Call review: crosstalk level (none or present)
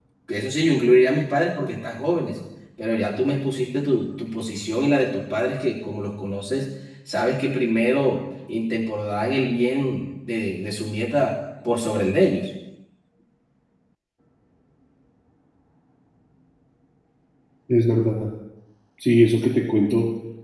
none